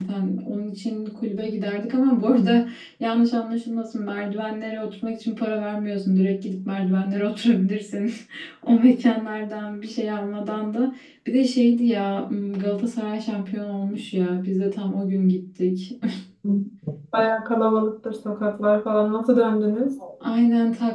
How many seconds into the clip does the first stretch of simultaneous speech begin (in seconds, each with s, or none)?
none